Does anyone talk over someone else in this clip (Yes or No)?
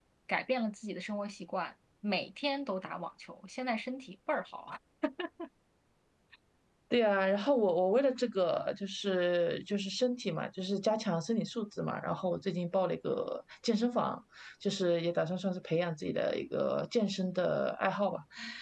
No